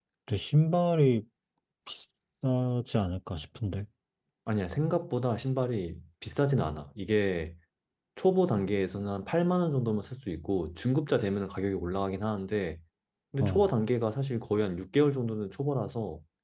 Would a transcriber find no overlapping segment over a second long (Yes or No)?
Yes